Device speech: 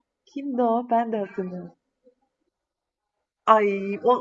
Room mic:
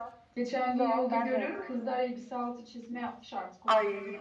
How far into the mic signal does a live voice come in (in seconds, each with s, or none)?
0.3 s